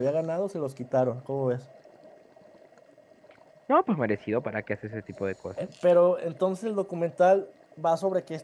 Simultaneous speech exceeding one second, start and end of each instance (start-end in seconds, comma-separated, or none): none